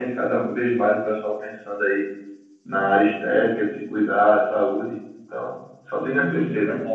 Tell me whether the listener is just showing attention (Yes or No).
No